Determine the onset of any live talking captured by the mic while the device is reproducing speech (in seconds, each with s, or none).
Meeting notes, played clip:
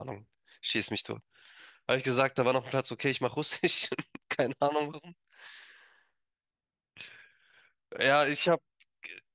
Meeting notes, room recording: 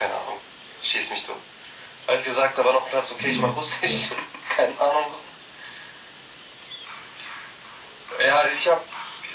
3.2 s